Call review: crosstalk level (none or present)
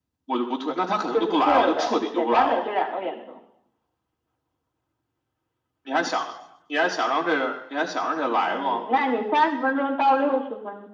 present